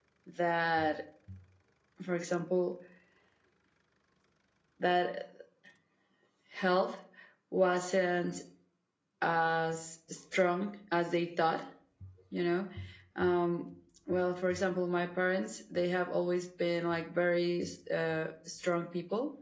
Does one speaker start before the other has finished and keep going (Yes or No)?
No